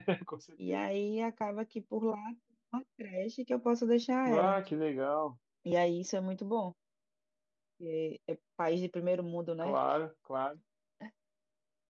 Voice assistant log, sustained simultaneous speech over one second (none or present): none